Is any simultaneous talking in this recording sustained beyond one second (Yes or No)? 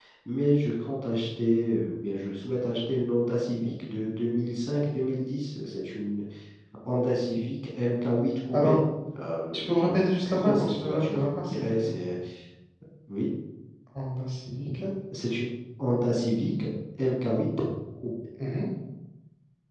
Yes